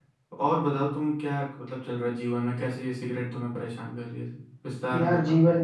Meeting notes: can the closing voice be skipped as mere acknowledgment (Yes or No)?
No